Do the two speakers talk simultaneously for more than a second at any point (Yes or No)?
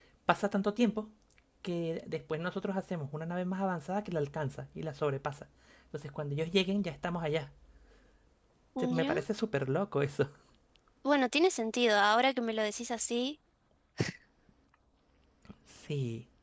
No